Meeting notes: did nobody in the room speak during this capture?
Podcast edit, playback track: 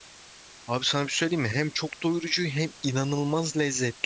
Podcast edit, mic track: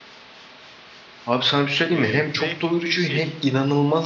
No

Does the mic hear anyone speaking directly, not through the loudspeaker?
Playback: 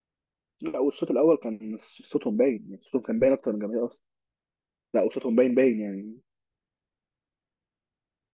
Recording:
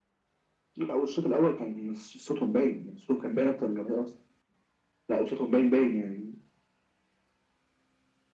No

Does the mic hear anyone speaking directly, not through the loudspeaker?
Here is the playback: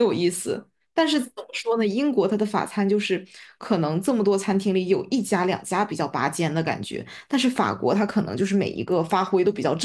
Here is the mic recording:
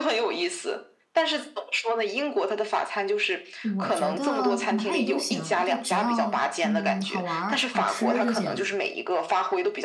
Yes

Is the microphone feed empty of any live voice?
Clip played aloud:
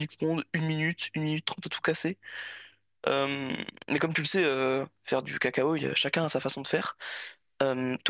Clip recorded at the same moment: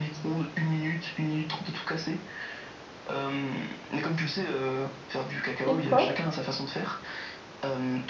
No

